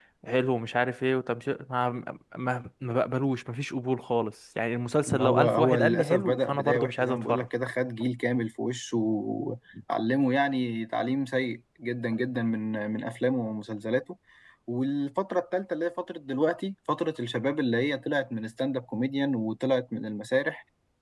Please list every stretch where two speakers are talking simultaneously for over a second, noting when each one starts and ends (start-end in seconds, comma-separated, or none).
5.1-7.5